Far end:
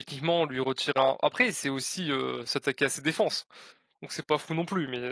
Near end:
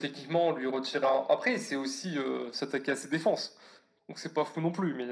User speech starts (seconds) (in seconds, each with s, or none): none